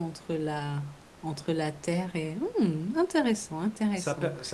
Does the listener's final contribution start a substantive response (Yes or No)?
Yes